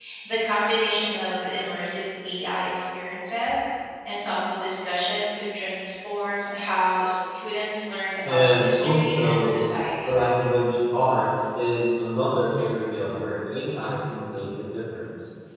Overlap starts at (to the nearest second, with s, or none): 8 s